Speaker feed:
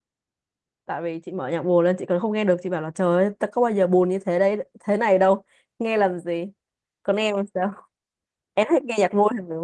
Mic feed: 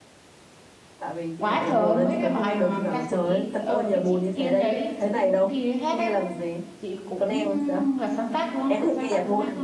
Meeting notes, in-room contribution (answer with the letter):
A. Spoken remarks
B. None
A